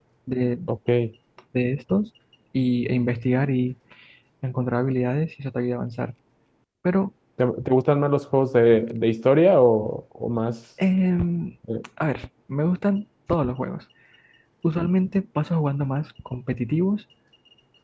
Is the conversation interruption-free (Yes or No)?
Yes